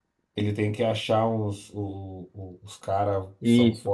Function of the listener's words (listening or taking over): listening